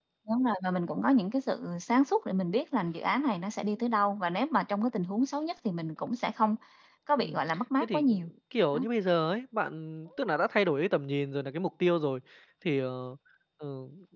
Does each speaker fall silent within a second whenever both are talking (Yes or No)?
Yes